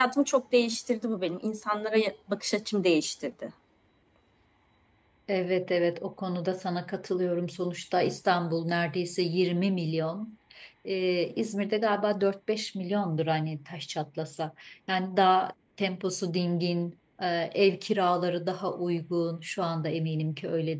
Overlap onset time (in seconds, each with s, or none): none